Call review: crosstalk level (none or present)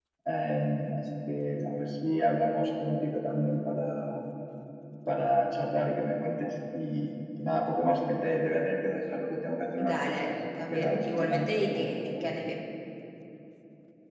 present